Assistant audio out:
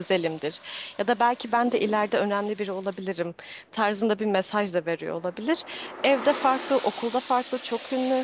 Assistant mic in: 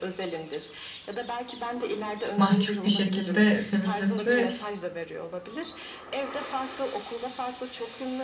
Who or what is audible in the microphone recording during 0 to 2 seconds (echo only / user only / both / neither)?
echo only